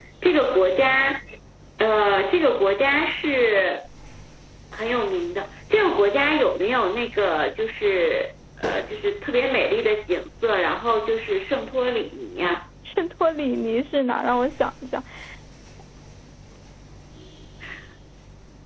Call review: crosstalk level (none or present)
none